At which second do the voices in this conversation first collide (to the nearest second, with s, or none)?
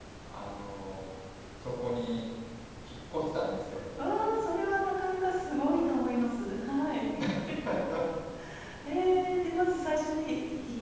none